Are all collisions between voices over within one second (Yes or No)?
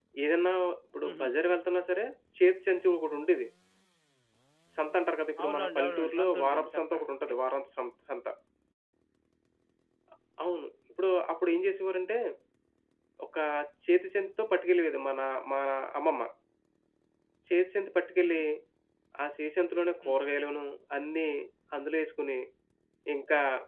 No